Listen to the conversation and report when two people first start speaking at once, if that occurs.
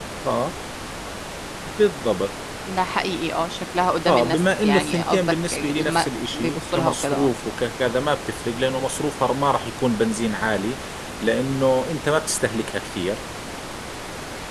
4 s

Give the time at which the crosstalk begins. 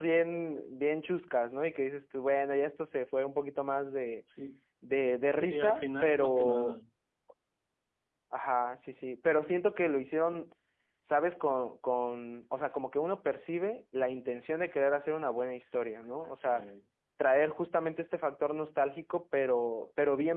5 s

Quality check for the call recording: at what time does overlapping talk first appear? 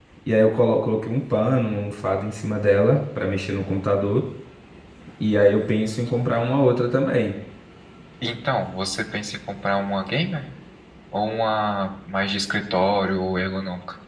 none

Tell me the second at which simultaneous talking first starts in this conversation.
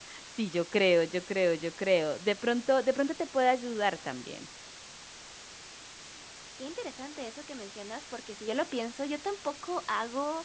none

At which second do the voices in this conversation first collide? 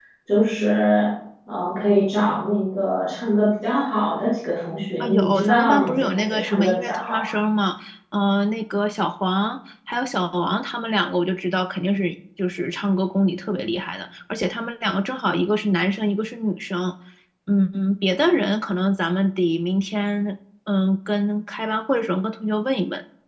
5 s

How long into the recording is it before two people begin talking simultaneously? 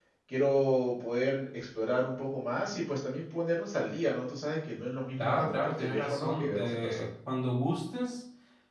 5 s

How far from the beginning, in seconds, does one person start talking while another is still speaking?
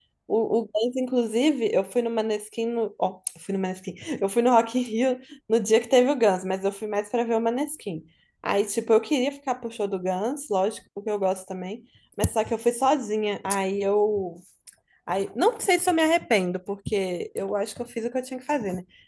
none

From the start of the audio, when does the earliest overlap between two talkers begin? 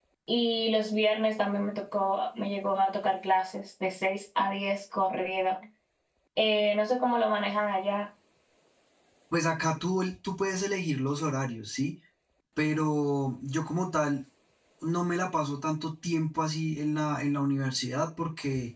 none

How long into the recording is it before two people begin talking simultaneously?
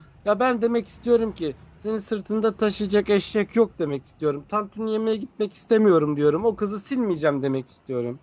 none

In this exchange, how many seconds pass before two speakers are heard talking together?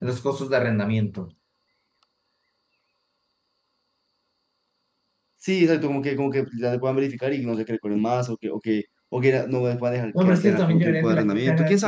10 s

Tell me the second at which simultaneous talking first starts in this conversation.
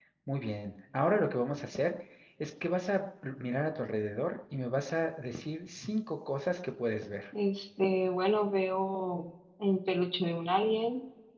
none

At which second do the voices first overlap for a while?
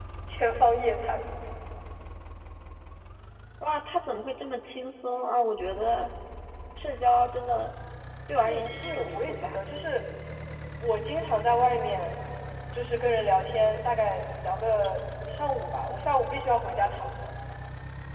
8 s

